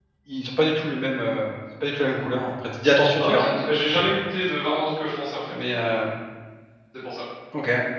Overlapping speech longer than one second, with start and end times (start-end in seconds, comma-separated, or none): none